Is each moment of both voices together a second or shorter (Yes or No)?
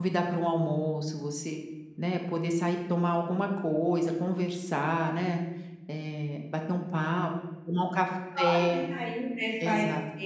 Yes